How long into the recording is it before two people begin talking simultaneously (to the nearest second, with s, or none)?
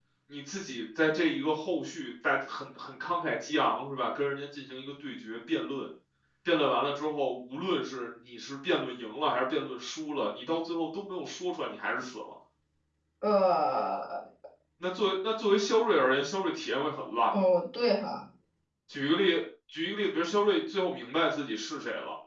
none